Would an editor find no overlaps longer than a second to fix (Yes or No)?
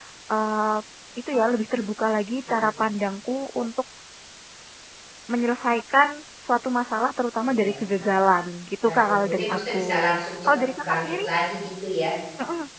No